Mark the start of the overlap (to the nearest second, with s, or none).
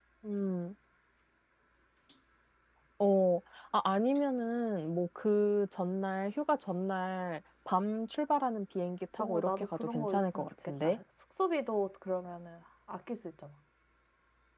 9 s